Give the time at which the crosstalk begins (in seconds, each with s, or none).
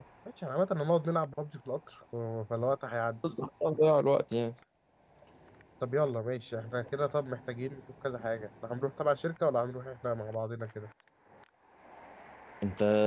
none